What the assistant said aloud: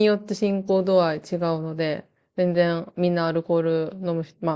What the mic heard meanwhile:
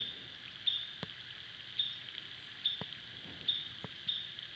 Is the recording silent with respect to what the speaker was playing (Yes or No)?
Yes